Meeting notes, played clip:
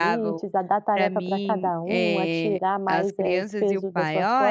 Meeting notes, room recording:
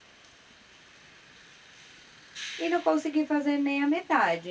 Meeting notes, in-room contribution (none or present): present